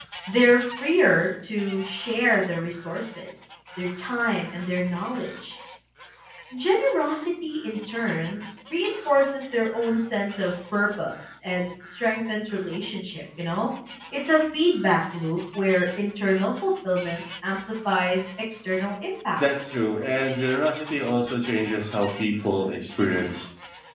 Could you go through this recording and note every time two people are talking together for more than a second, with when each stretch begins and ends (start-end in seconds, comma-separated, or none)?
none